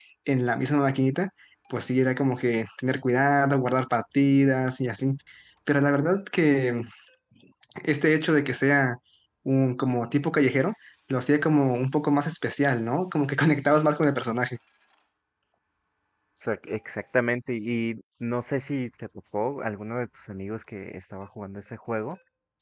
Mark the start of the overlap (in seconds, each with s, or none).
none